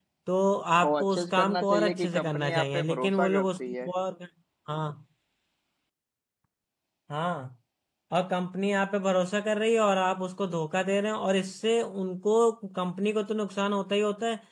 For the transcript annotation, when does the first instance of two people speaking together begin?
1 s

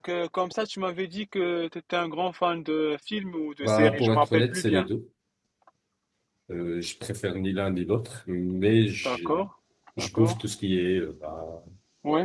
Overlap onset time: 4 s

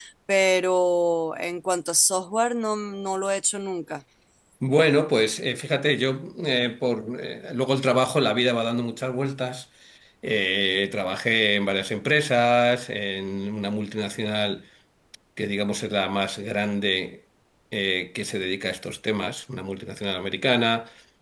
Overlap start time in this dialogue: none

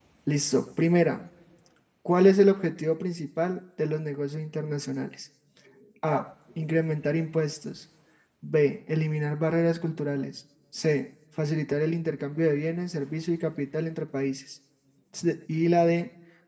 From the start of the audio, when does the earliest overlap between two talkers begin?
none

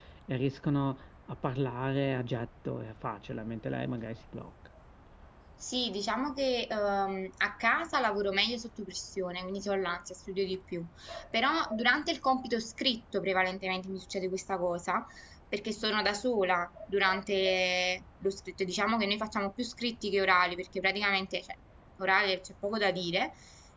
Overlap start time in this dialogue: none

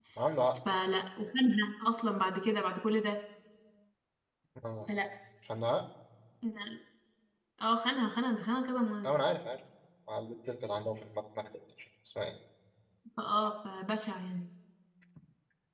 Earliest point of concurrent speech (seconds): none

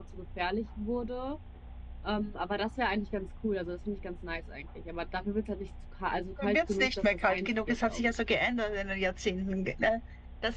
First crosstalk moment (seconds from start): 6 s

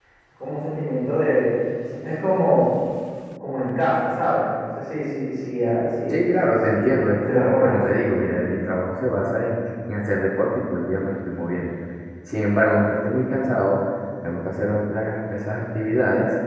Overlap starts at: 6 s

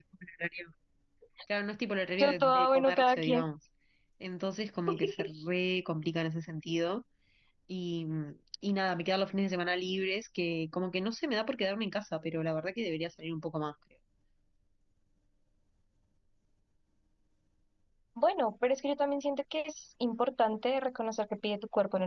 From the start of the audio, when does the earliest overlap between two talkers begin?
2 s

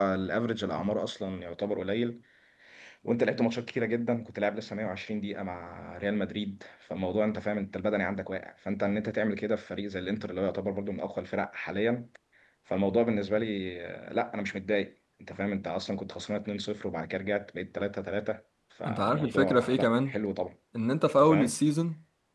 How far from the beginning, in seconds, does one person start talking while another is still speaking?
19 s

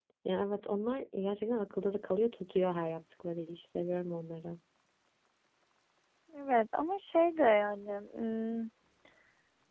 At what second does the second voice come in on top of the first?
none

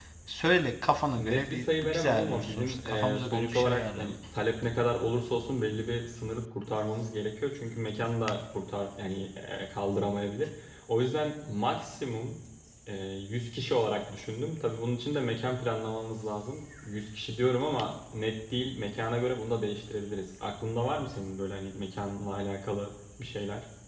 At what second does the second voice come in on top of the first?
1 s

